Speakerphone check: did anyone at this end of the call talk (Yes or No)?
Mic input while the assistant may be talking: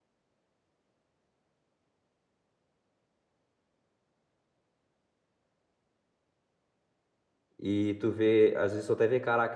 Yes